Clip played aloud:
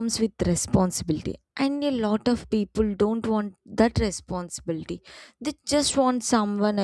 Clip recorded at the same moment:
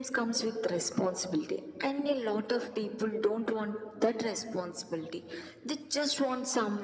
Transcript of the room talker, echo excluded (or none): none